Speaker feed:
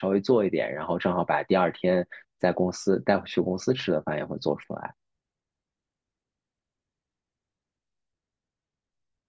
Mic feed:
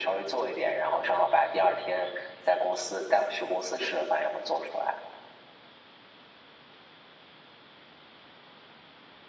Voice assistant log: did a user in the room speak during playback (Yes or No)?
No